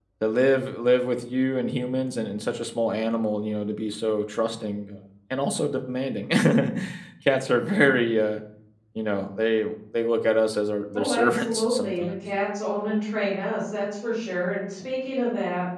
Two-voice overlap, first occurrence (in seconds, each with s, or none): 10.9 s